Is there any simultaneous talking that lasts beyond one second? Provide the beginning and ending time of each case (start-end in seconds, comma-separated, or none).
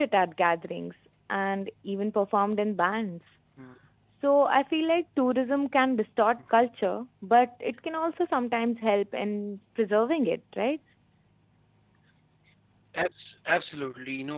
none